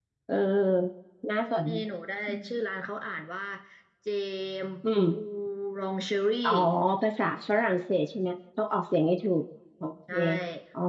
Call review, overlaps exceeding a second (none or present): none